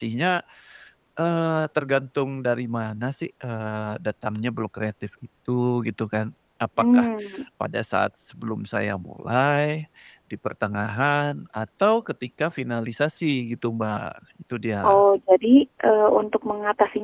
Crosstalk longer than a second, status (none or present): none